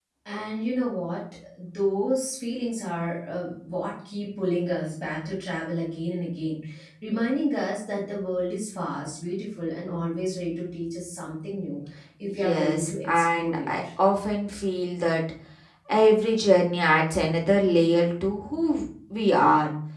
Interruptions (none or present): present